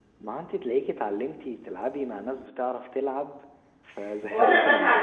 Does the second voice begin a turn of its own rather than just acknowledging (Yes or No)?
Yes